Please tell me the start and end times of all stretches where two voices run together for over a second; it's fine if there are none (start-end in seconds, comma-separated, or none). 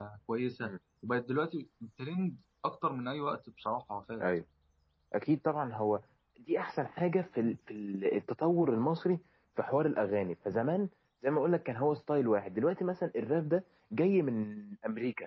none